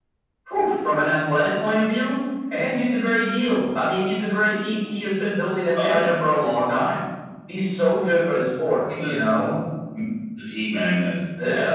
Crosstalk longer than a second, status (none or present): none